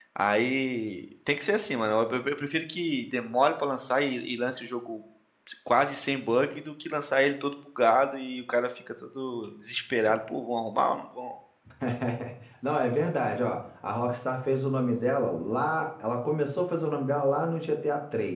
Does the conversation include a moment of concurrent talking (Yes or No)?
No